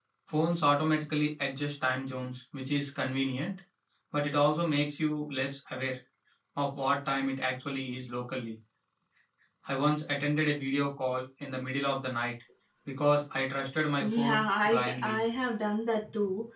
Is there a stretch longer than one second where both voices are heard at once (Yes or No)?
Yes